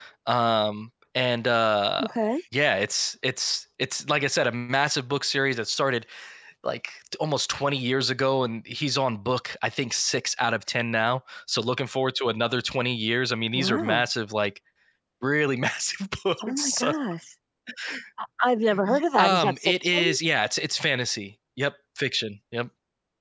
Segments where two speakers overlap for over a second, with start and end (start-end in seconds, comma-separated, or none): 18.9-20.2